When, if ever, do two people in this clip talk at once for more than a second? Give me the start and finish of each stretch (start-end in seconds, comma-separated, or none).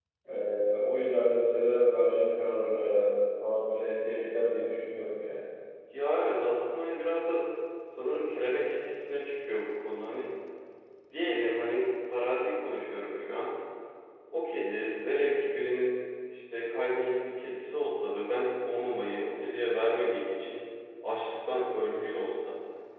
none